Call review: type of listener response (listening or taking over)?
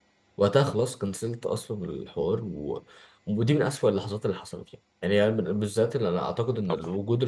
listening